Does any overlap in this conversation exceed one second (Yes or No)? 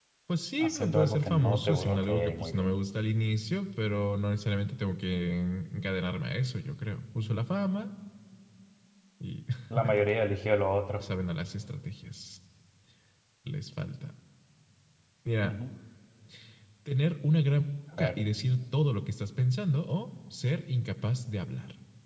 Yes